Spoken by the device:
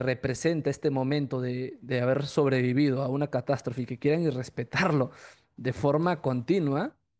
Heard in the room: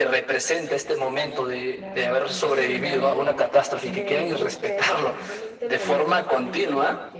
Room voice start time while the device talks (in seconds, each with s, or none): 1.7 s